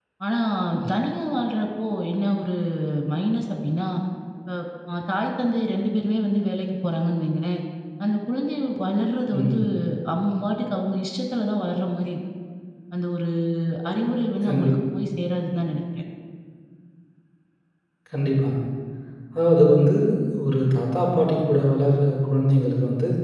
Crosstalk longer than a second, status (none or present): none